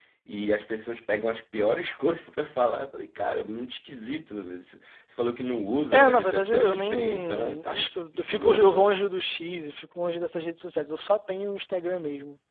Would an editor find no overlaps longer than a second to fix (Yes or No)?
No